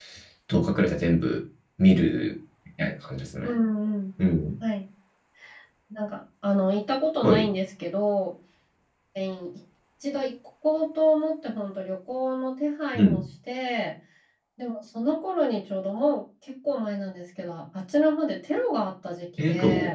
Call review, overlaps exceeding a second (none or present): none